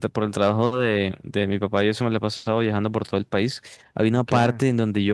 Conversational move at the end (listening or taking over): listening